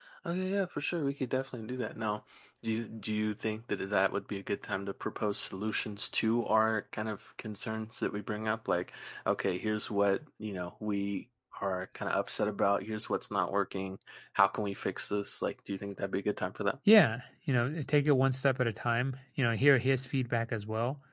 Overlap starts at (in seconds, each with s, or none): none